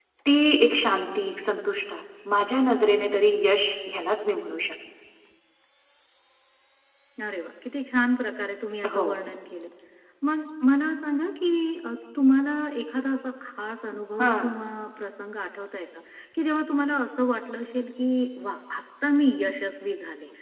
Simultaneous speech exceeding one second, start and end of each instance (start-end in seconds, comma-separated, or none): none